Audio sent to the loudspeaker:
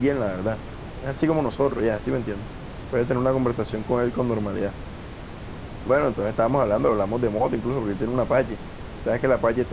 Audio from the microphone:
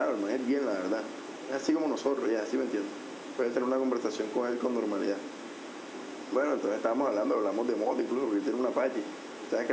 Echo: present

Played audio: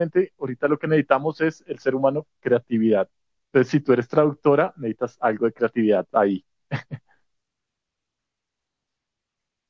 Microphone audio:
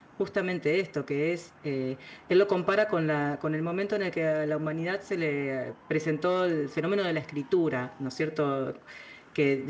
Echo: none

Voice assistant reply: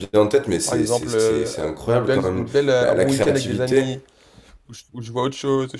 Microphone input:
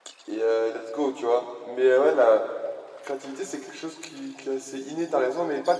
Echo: none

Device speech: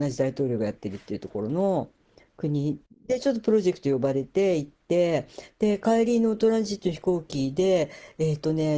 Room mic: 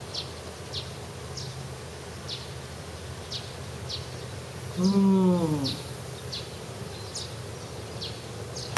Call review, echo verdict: none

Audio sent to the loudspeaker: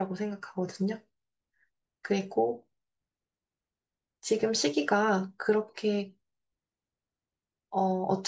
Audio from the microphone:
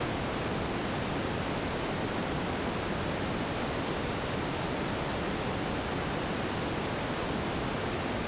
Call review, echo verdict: none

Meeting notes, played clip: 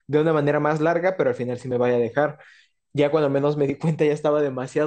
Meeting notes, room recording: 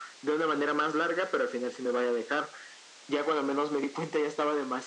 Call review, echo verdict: present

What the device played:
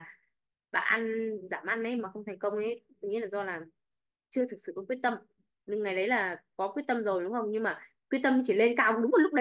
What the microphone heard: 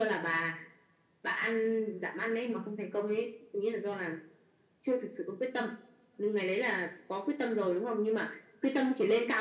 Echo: present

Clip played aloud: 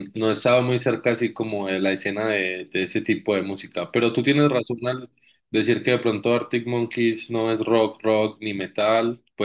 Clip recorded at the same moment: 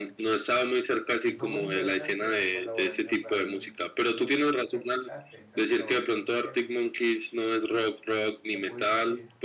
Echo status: present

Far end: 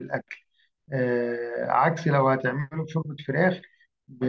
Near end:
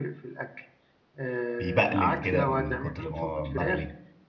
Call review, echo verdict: present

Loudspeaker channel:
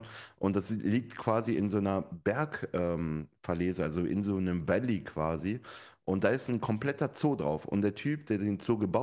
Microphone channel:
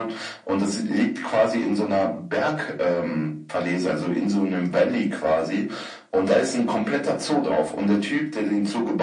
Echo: present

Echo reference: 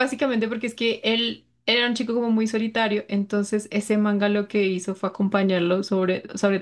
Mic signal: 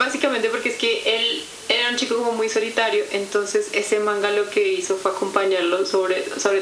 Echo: present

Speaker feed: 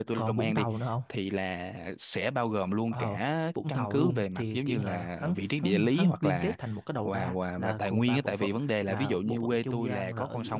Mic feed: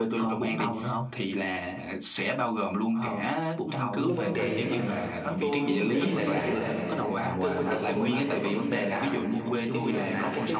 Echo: present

